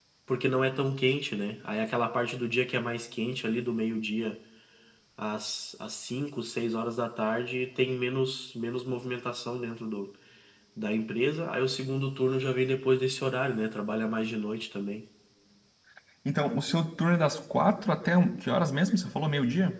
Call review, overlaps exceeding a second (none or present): none